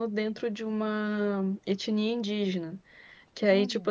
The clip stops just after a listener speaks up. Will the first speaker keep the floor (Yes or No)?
Yes